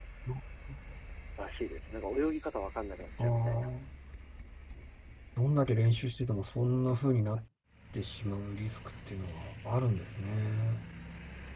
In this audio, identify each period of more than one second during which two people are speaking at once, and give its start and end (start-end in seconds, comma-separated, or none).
none